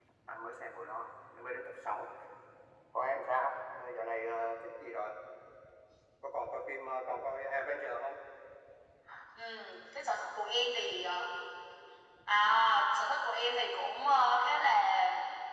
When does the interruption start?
none

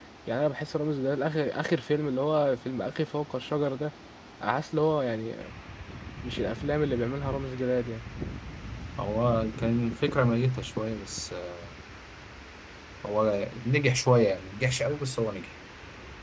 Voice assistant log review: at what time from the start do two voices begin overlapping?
none

